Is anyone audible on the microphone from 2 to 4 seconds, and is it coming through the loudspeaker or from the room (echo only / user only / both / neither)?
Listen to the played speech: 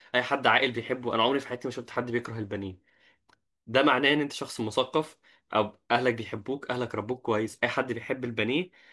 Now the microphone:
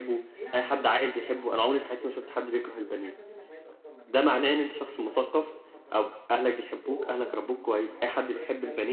both